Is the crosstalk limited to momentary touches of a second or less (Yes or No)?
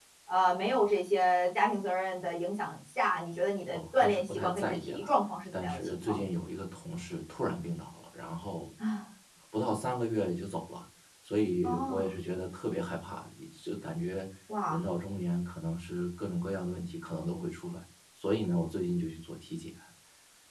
No